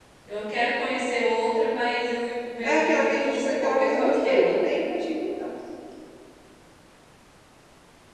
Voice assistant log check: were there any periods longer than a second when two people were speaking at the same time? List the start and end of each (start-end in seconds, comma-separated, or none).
2.6-4.5